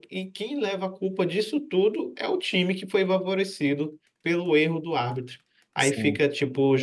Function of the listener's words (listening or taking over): listening